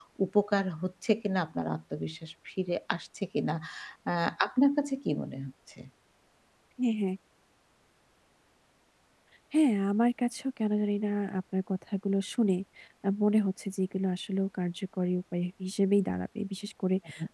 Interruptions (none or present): none